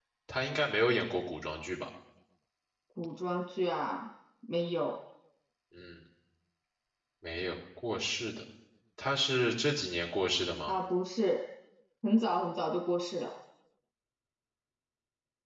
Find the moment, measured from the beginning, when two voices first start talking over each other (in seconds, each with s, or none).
none